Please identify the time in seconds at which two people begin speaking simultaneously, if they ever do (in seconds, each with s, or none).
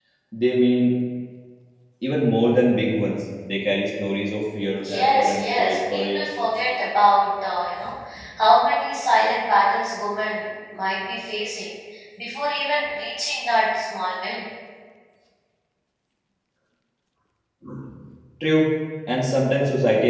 4.8 s